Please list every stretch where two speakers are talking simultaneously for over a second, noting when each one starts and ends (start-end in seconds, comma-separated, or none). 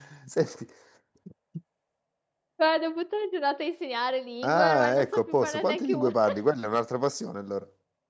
4.4-6.1